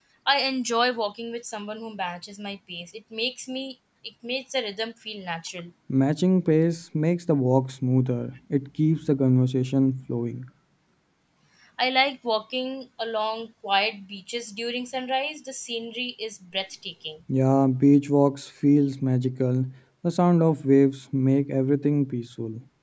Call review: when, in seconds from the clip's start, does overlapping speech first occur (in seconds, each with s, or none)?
none